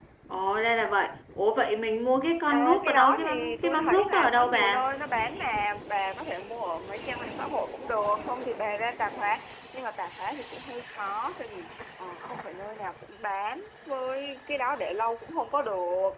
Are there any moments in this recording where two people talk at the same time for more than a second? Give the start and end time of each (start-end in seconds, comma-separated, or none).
2.5-4.9